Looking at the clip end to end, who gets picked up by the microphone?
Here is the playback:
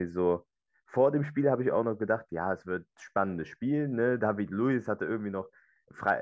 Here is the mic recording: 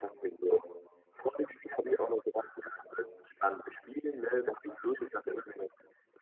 echo only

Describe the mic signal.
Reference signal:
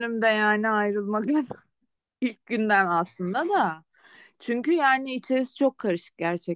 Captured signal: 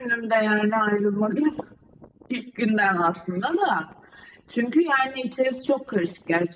echo only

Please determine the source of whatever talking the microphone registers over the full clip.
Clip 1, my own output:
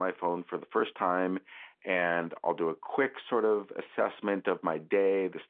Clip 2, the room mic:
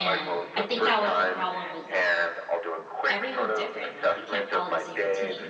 both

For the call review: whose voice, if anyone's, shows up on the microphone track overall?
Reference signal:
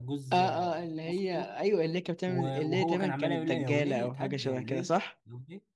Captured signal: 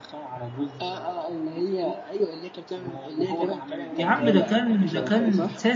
both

